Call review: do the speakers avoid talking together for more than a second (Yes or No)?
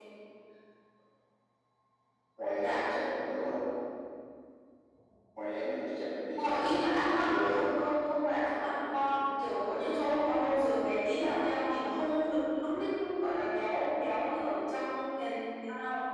No